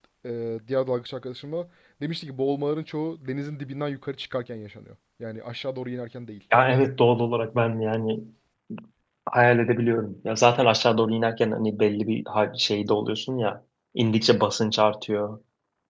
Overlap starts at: none

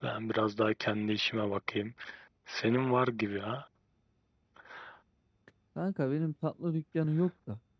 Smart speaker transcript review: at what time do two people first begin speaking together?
none

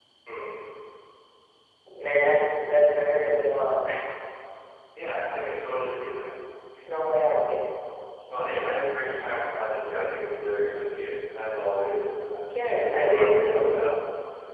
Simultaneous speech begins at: 12.5 s

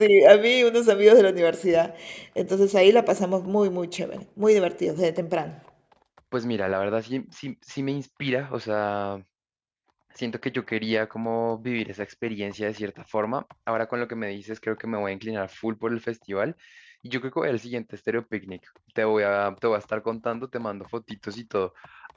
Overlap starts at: none

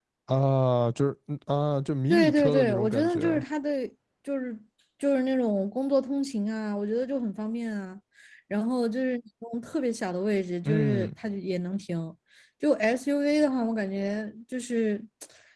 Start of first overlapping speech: 2.1 s

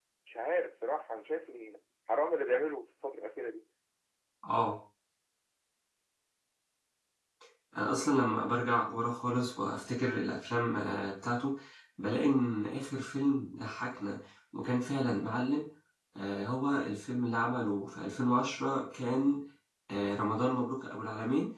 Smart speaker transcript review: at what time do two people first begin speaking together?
none

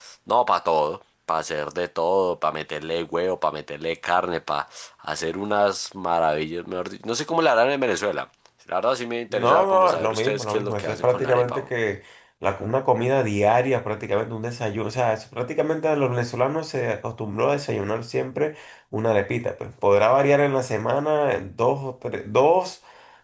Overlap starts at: 9.3 s

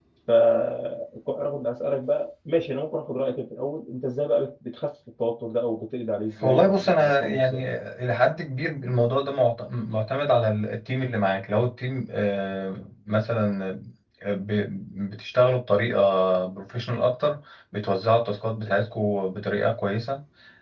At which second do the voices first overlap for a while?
6.4 s

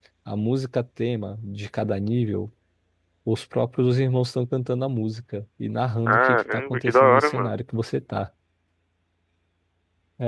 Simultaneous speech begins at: 6.1 s

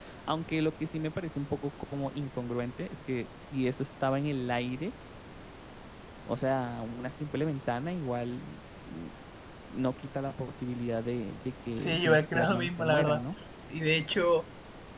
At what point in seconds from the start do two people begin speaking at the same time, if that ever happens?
11.8 s

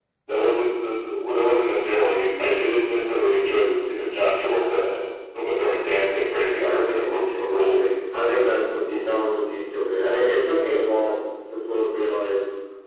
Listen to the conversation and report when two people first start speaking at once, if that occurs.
6.5 s

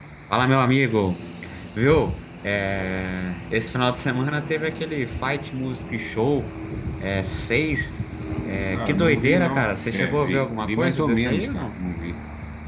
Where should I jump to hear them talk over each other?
8.7 s

